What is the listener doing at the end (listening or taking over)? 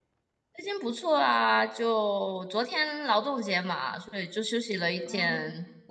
taking over